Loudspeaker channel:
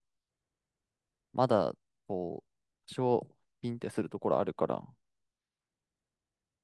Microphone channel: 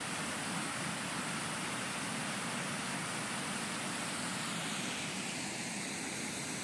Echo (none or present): none